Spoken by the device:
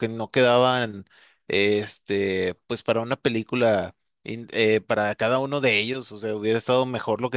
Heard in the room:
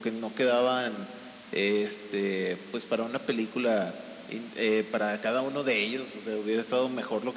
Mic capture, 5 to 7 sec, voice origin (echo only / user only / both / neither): echo only